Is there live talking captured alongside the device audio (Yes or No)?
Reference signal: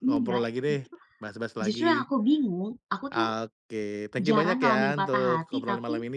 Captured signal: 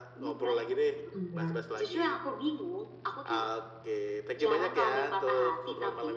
Yes